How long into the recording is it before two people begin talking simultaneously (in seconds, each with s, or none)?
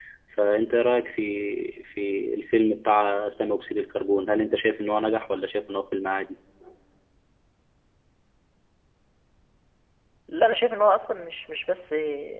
none